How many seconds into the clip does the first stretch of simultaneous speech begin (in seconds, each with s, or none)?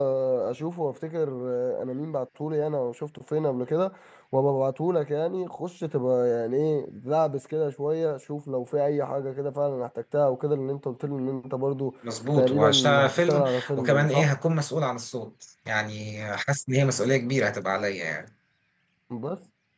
12.4 s